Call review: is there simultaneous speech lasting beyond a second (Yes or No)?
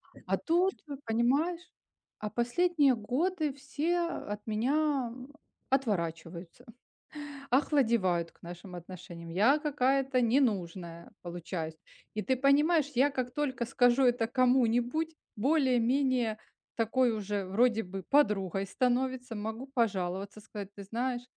No